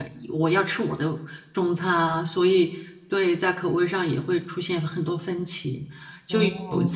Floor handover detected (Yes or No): No